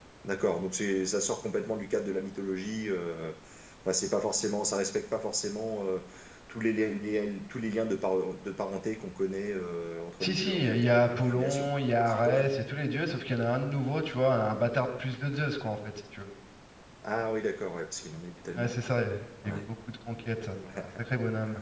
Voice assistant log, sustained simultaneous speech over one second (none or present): present